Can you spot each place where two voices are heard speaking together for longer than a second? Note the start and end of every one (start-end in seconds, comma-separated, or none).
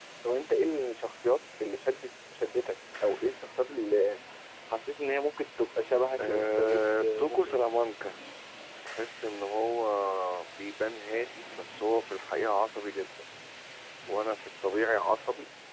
6.2-7.6